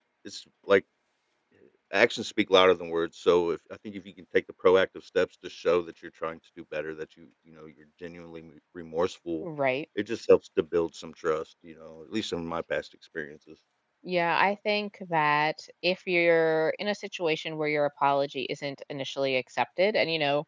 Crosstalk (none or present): none